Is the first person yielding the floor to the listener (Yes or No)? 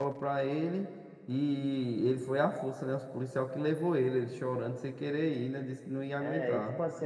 Yes